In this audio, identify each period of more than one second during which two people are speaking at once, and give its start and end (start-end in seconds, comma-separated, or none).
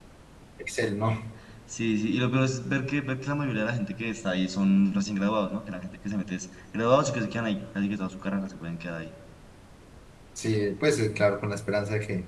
none